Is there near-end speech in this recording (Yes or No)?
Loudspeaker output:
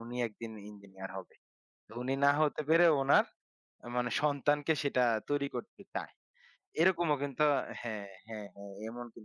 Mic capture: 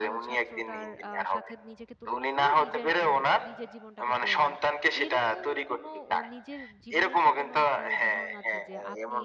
Yes